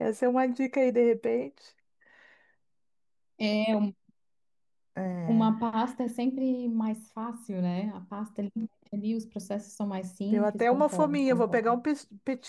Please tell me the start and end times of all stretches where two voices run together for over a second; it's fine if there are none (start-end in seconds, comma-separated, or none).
10.3-11.8